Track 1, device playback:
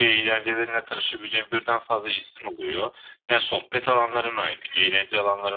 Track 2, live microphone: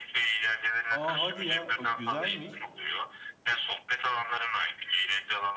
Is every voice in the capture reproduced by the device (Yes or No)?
No